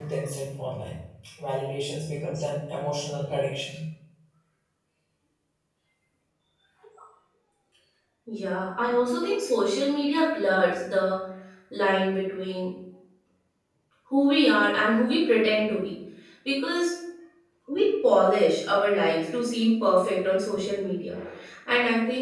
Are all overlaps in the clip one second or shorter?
Yes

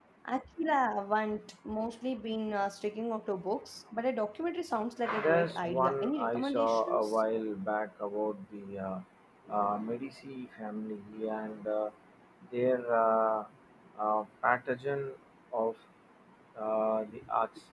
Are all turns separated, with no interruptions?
No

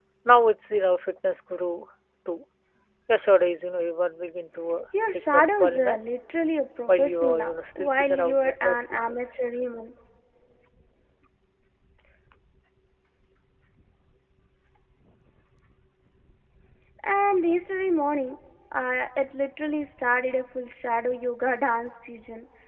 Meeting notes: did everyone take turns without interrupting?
No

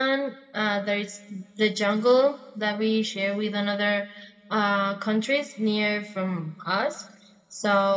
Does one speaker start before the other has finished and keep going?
No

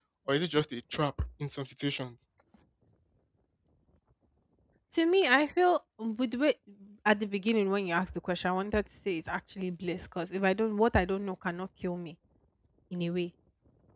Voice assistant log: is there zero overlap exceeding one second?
Yes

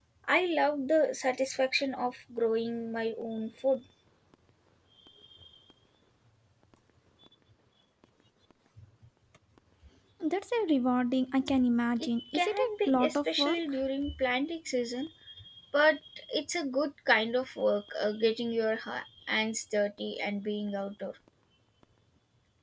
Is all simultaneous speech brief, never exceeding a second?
No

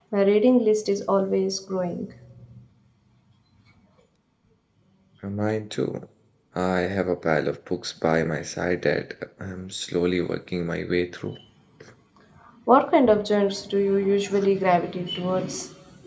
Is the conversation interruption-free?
Yes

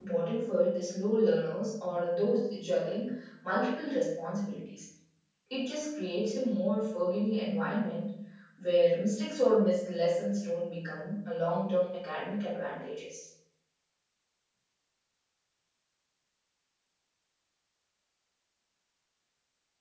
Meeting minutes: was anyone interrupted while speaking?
No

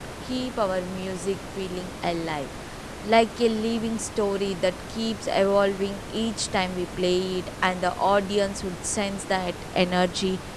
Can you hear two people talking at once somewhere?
No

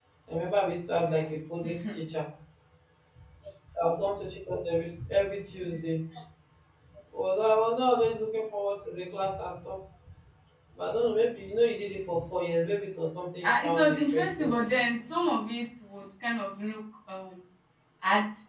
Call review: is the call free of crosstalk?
No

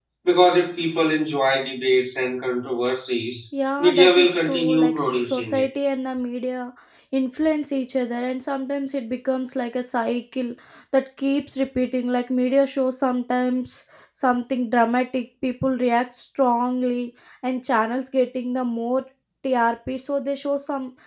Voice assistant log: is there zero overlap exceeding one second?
No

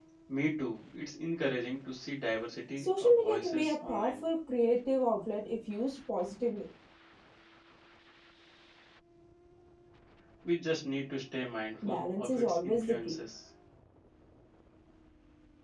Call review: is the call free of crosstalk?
No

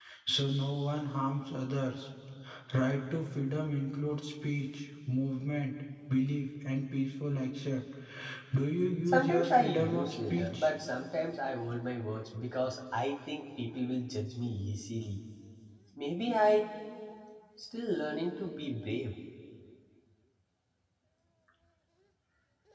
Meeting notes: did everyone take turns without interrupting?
No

